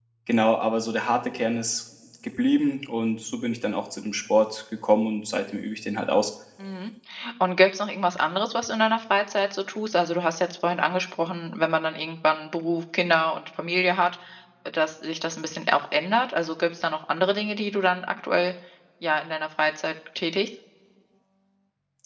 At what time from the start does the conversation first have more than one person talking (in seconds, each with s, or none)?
none